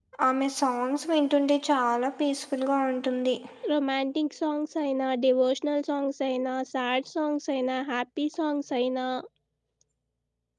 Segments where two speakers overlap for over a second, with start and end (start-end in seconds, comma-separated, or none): none